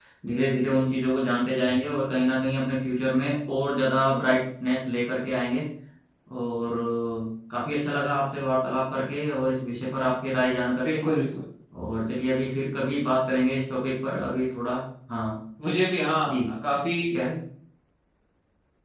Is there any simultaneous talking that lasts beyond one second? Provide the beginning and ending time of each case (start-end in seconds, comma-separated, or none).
none